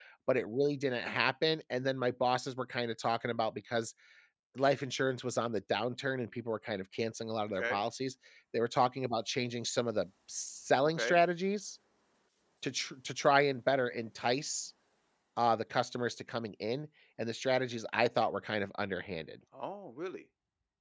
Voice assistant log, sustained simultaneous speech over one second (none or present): none